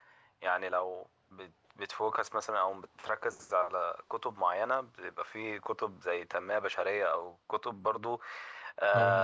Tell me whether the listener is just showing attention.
Yes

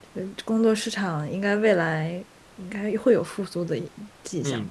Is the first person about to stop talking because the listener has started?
Yes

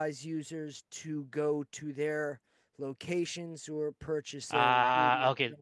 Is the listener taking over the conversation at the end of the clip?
Yes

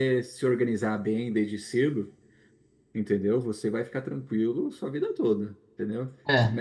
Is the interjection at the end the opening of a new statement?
No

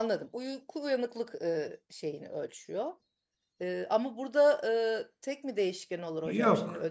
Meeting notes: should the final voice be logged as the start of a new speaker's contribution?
Yes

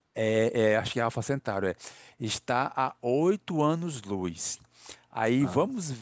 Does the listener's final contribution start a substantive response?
No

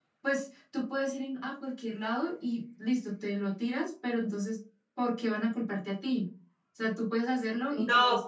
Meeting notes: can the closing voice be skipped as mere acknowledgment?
No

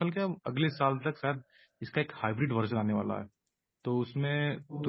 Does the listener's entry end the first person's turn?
No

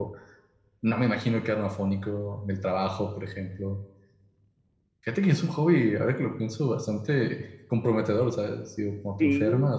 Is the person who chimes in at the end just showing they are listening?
Yes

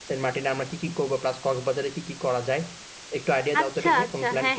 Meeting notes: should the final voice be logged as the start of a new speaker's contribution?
Yes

